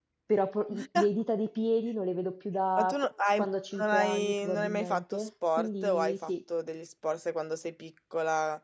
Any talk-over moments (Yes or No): Yes